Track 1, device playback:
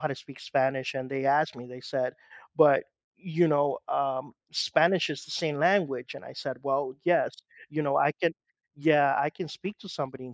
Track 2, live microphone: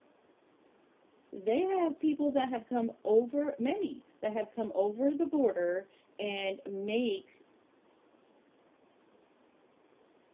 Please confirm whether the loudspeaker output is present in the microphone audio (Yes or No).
No